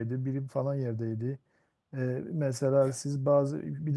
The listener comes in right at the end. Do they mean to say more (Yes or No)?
No